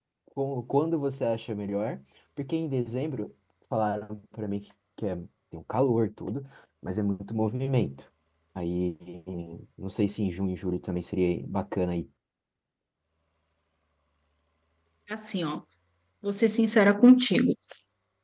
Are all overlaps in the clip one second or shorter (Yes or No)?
Yes